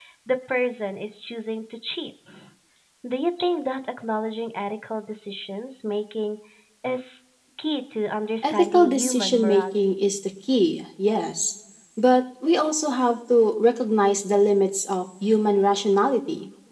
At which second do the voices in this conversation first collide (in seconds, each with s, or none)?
8.4 s